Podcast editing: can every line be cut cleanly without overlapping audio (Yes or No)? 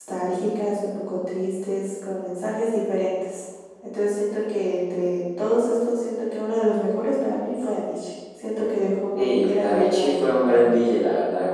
No